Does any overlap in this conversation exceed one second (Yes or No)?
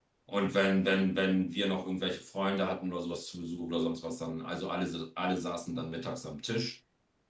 No